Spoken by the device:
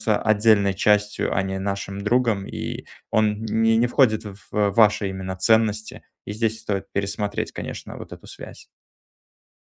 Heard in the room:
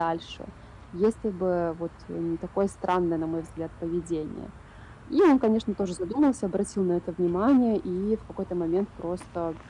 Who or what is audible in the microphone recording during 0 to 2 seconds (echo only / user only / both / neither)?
user only